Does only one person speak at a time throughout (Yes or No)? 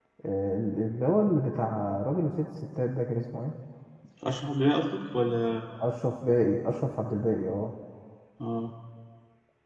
Yes